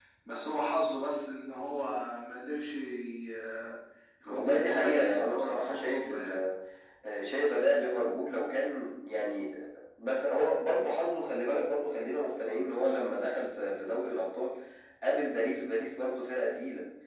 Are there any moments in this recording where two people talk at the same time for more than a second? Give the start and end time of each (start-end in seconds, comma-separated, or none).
4.3-6.3